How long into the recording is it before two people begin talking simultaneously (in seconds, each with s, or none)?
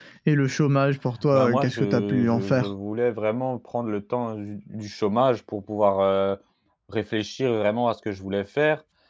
1.3 s